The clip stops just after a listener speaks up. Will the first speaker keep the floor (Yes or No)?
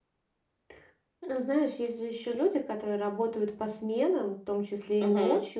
Yes